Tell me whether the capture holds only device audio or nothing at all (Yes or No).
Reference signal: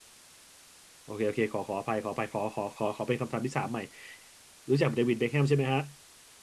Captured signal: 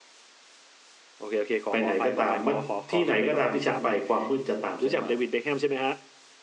No